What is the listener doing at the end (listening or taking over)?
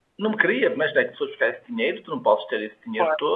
listening